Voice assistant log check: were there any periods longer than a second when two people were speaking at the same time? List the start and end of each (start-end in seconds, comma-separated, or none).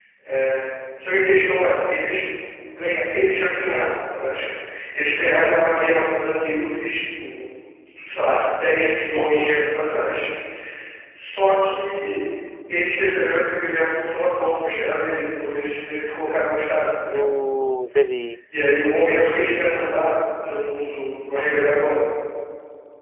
none